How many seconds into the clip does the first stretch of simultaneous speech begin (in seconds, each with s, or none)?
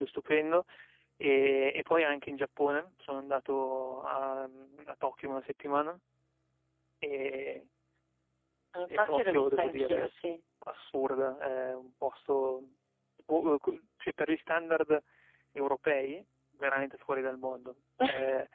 8.9 s